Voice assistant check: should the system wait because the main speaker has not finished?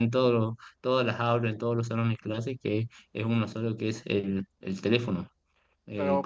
No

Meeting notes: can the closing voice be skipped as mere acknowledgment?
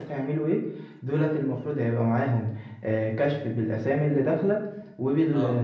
Yes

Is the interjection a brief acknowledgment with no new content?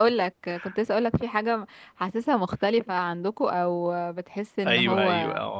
No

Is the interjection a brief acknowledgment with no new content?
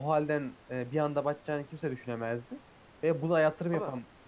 Yes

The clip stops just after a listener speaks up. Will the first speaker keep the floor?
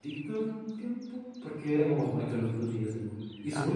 Yes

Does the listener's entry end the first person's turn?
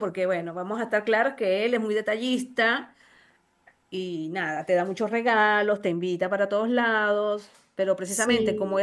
No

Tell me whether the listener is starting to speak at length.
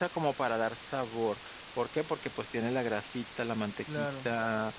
No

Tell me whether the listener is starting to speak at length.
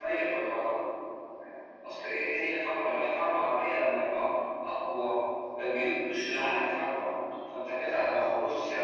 No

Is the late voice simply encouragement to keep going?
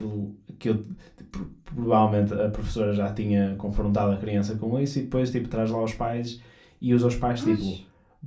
Yes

